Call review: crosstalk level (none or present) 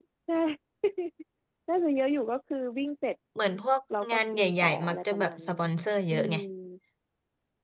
present